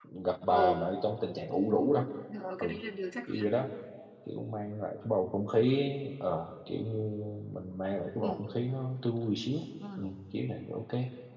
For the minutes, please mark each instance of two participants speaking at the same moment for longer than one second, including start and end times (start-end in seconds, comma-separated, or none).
none